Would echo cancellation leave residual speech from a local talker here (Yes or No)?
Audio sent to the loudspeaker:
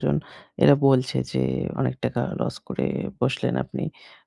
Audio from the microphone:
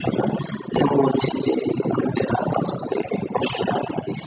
No